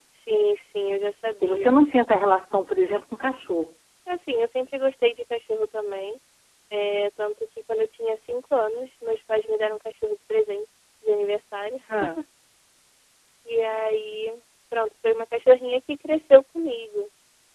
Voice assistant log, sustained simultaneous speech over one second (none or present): none